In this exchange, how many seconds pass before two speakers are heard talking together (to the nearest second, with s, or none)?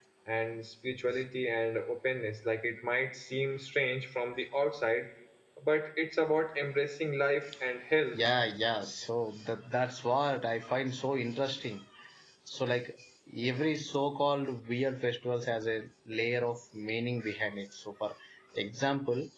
none